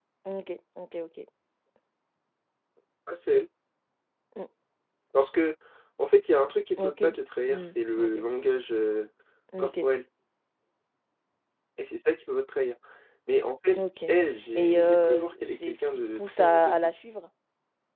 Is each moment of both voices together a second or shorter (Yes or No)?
No